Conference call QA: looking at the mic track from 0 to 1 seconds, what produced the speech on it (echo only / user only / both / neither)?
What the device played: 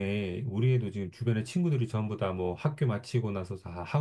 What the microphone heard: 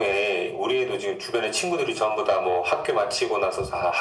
echo only